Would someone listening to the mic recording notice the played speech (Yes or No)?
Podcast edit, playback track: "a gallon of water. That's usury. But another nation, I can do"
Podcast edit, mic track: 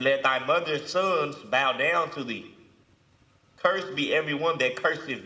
No